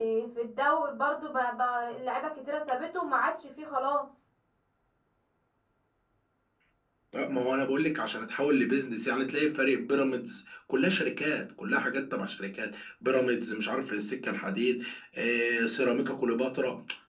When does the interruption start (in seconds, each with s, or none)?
none